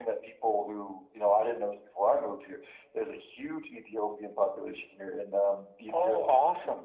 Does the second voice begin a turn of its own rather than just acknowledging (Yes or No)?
No